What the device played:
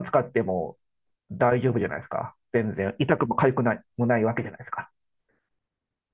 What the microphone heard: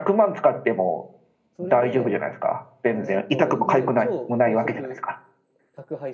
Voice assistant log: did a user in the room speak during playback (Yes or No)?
Yes